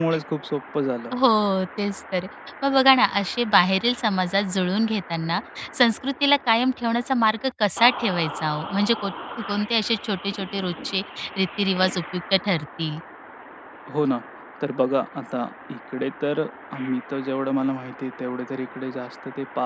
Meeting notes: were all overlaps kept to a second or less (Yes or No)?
Yes